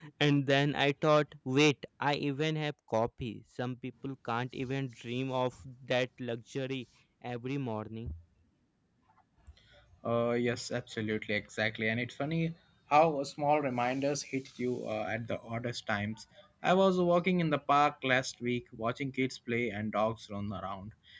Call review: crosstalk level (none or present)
none